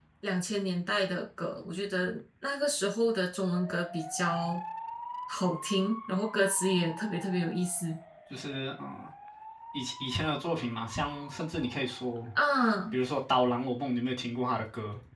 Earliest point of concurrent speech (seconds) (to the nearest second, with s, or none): none